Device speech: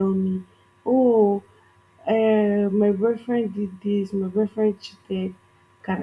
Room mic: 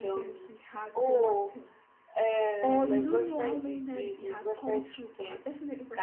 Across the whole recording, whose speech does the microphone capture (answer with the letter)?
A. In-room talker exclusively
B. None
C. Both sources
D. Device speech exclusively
C